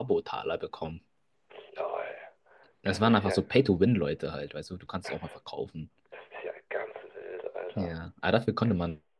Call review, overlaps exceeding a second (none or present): none